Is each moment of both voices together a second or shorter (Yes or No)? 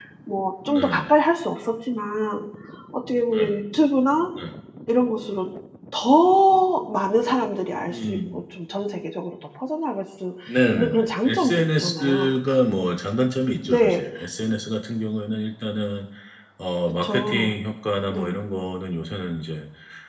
No